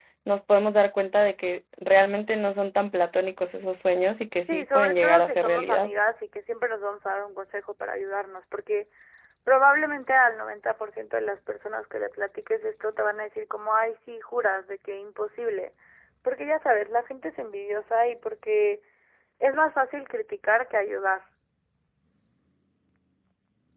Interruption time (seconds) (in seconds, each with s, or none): 4.5 s